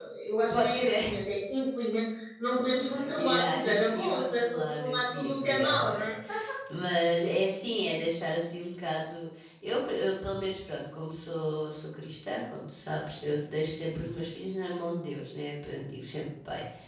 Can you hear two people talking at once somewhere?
Yes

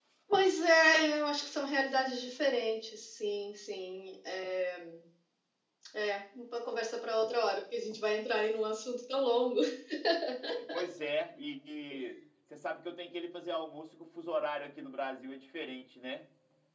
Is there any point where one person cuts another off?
No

